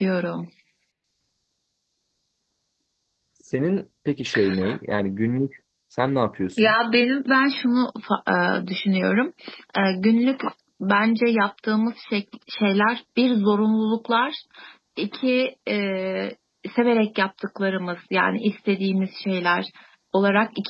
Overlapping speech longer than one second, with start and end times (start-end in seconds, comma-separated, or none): none